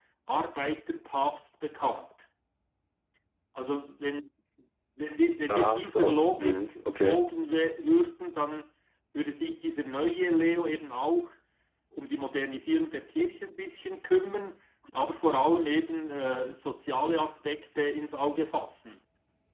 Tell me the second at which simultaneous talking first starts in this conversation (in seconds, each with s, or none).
5.5 s